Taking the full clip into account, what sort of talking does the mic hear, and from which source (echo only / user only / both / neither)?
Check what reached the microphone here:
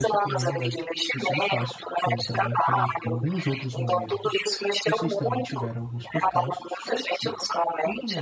both